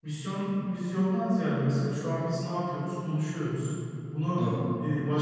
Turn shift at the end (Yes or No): No